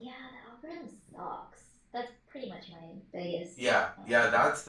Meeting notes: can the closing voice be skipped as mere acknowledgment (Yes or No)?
No